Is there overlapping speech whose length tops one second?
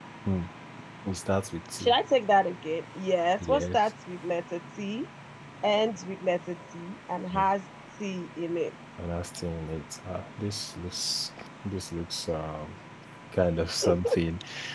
No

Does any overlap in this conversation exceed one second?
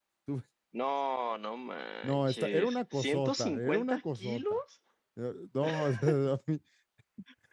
Yes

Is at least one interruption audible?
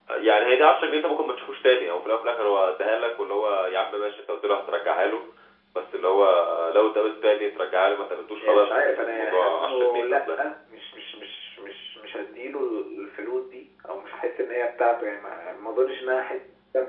Yes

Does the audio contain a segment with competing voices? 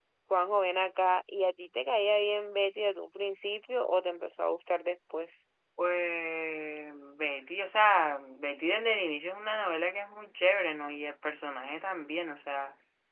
No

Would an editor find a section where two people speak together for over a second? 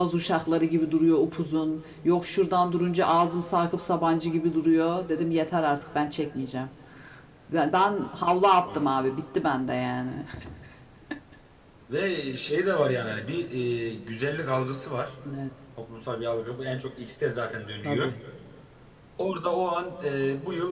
No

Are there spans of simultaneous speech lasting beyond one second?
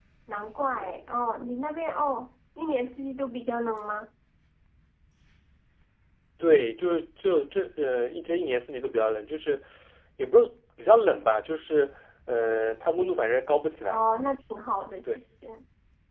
No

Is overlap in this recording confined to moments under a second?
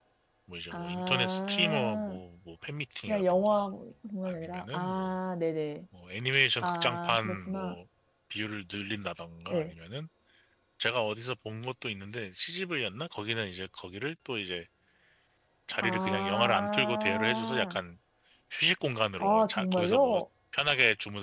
No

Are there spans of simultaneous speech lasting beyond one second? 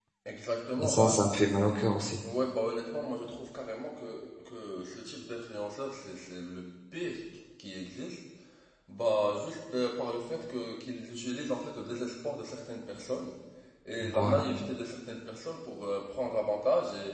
No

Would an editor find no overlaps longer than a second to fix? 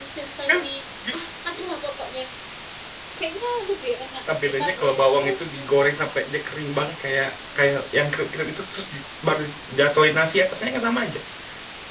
No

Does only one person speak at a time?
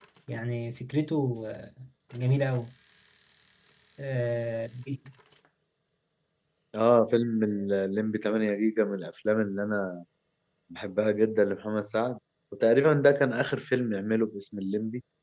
Yes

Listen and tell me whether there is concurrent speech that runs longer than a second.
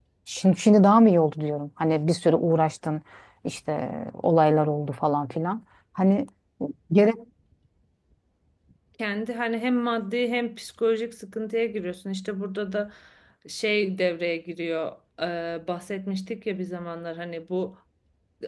No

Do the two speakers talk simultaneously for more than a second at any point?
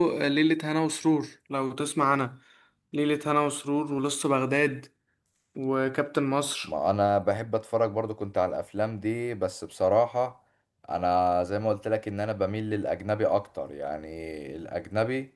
No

